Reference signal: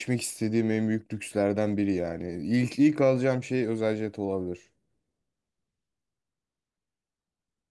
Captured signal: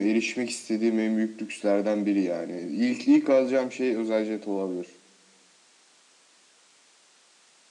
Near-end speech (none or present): none